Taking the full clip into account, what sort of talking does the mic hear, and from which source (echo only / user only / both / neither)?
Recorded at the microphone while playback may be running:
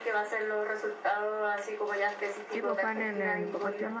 both